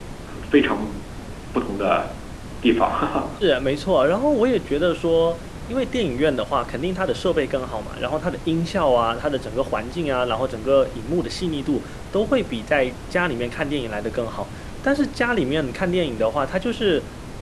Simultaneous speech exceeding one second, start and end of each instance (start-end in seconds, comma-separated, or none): none